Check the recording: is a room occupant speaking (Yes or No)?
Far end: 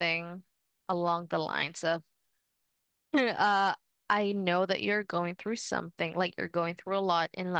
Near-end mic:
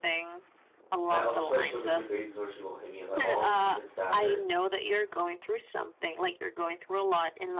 Yes